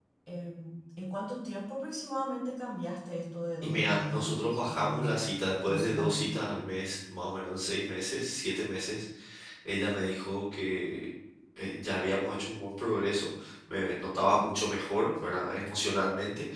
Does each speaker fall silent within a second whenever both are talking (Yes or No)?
No